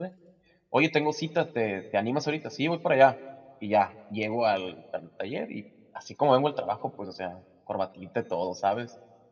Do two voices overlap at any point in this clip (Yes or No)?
No